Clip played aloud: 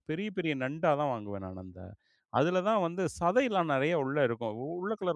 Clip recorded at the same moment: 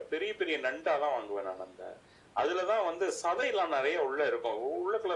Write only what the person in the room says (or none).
none